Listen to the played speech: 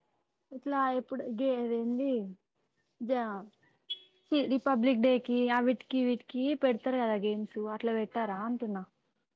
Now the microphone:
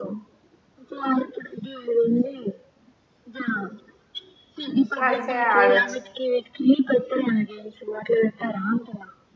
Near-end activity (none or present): present